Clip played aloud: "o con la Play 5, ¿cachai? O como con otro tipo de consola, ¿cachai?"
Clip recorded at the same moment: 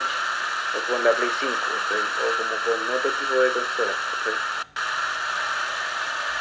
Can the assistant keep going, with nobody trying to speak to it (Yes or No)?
Yes